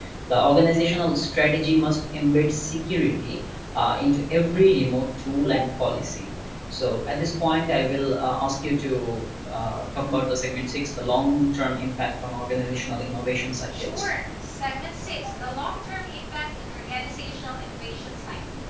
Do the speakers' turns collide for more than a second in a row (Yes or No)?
No